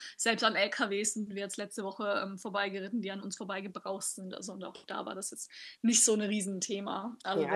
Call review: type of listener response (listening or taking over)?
taking over